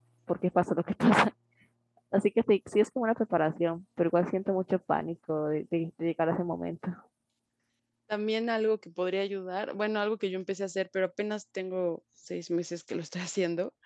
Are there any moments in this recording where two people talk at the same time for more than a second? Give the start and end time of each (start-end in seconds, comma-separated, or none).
none